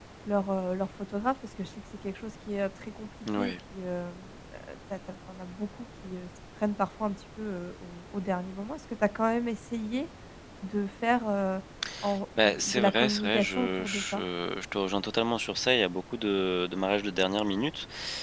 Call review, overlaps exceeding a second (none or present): present